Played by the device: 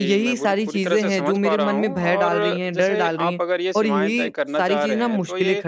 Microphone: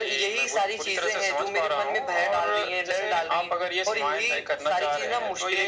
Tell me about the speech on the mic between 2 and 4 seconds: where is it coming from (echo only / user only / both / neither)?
echo only